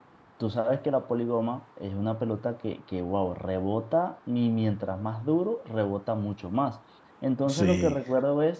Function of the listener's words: listening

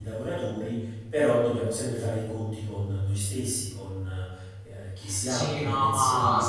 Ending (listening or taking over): taking over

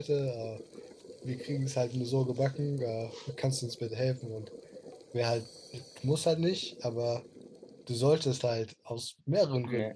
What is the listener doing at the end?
listening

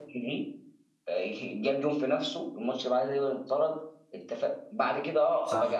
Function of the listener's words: listening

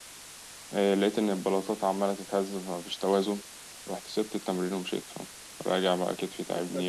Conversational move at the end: taking over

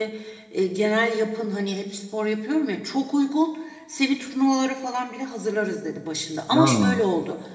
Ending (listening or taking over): listening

